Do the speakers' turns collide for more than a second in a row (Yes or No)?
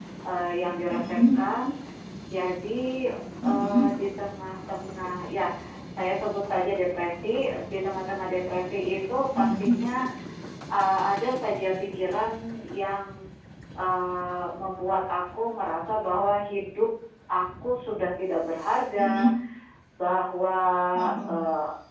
No